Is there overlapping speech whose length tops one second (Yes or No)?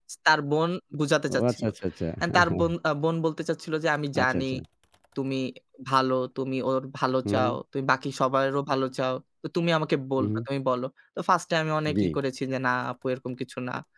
No